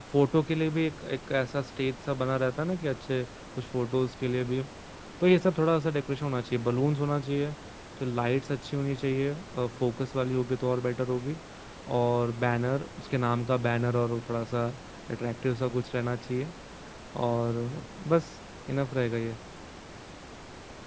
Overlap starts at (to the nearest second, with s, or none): none